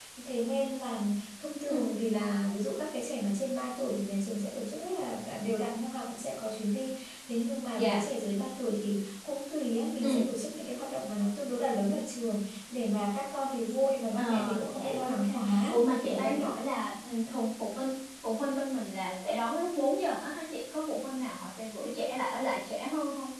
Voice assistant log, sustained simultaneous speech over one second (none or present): present